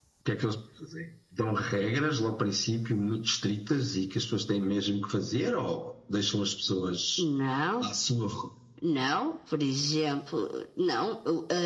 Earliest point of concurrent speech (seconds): none

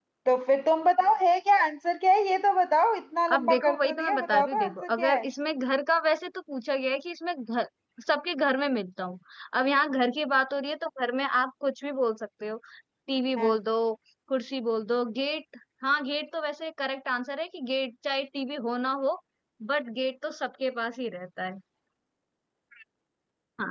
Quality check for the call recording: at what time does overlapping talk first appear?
3.3 s

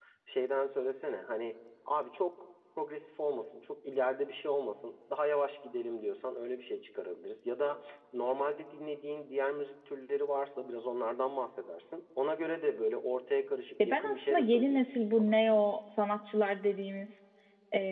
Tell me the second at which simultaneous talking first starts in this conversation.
13.8 s

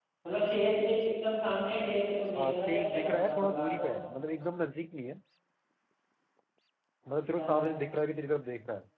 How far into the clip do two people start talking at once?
2.4 s

